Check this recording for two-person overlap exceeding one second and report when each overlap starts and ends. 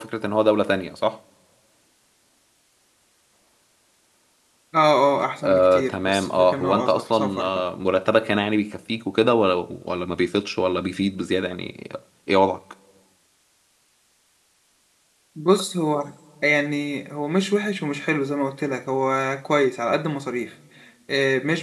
5.4-7.5

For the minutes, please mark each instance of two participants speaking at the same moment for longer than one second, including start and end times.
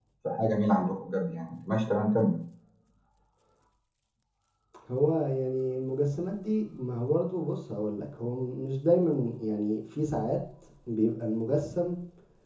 none

